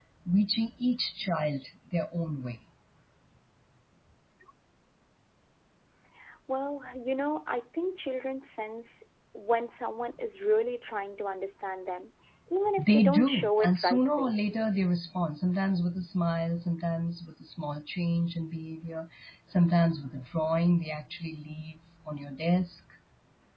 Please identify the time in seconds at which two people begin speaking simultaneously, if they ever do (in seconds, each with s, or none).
12.8 s